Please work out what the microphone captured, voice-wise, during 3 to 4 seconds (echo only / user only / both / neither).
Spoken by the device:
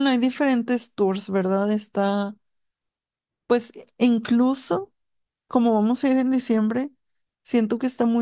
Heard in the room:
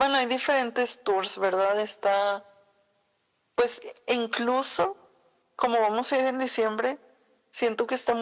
echo only